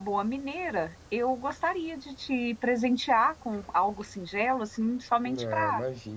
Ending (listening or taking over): taking over